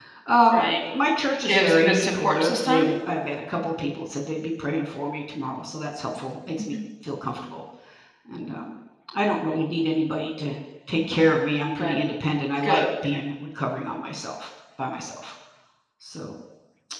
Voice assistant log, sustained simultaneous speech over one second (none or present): present